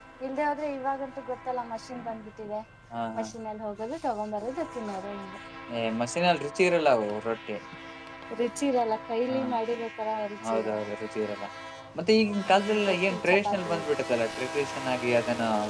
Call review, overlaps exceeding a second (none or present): present